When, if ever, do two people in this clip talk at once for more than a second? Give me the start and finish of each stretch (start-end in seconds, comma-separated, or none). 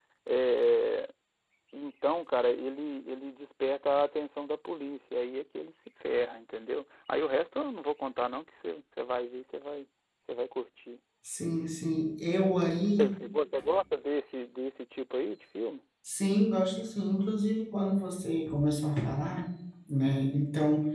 none